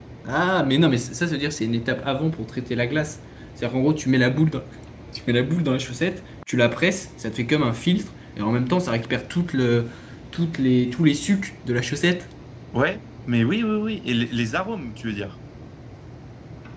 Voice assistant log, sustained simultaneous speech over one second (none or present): none